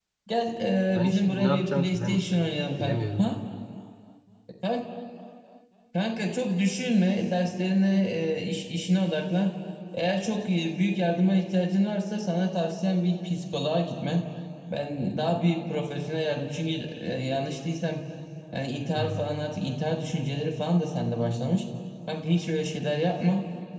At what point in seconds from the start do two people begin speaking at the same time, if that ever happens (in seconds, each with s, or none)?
1.0 s